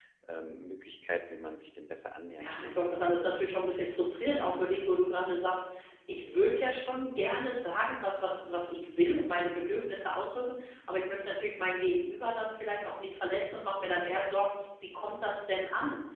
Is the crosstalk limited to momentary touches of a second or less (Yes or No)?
Yes